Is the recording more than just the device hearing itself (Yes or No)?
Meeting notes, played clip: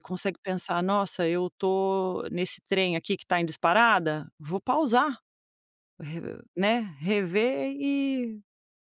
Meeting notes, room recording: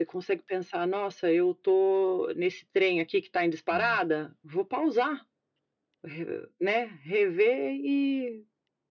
Yes